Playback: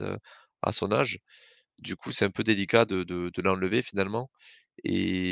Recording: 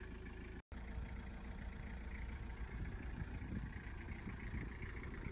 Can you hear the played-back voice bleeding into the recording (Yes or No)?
No